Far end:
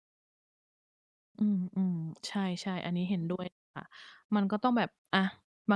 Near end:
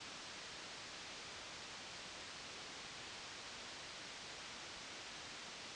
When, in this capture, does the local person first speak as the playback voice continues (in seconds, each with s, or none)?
none